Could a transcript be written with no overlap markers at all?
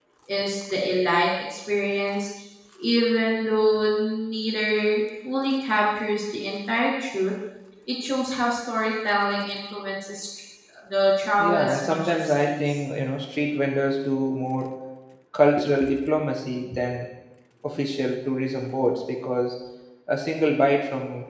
No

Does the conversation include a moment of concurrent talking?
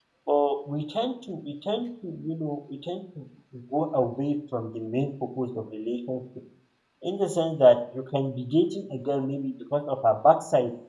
No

